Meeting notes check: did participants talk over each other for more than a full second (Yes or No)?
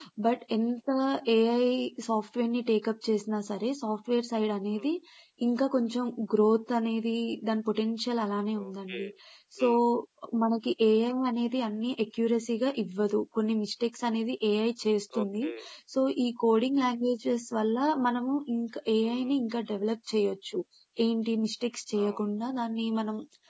No